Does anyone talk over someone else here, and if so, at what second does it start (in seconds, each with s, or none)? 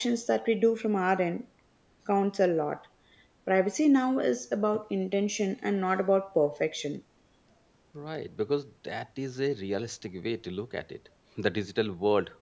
none